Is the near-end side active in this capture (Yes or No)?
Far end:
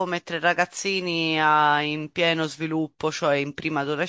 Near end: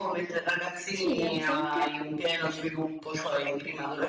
Yes